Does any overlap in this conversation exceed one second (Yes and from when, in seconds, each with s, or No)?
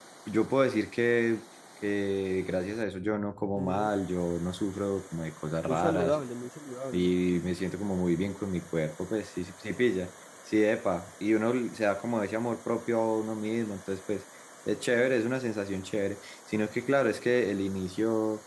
No